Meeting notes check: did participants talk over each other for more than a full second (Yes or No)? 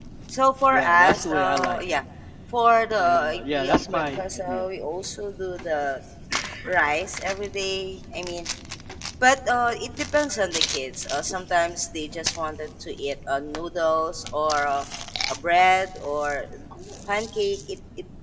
Yes